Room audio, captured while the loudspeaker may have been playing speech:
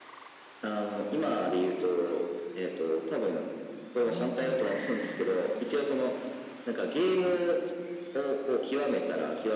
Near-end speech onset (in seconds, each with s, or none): 4.0 s